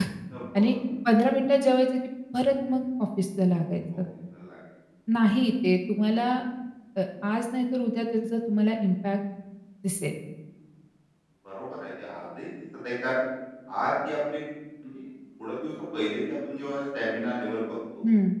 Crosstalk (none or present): none